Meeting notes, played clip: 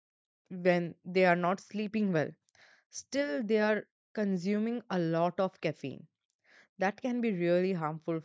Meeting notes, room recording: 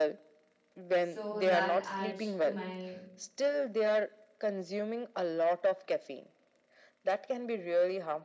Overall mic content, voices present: both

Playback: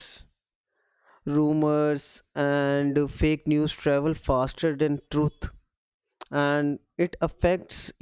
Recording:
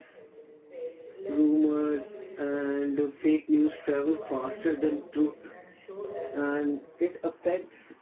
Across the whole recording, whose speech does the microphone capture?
both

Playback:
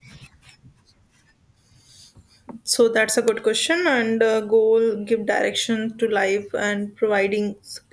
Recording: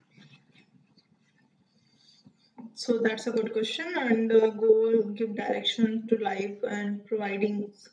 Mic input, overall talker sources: echo only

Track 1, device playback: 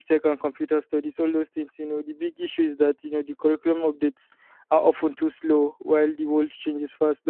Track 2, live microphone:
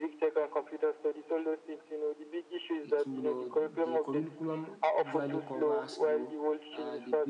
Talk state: both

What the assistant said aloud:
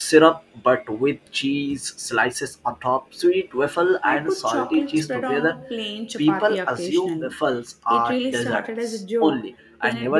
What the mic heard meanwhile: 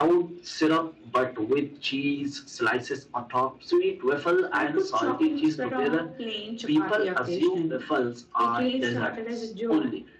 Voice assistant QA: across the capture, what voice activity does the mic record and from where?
echo only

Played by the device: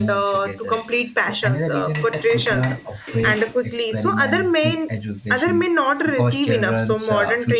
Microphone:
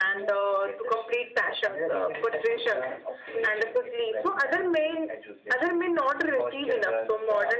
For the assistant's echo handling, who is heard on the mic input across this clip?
echo only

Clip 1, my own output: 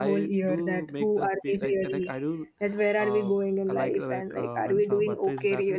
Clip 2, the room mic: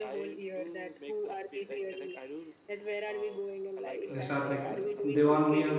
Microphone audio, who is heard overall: both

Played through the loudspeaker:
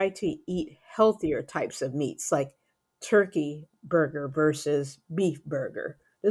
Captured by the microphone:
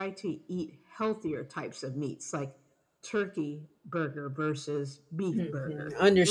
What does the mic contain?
both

